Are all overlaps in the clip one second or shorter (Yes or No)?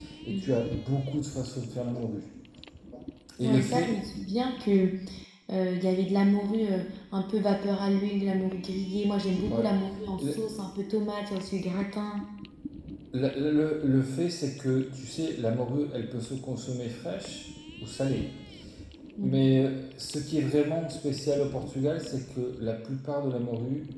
Yes